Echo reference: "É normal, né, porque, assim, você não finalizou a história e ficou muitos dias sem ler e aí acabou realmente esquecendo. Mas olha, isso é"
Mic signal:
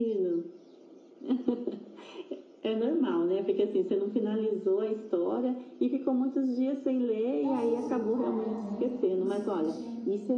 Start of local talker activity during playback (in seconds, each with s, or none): 7.4 s